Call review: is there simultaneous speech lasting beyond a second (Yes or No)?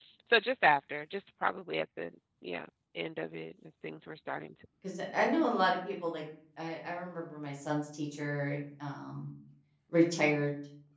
No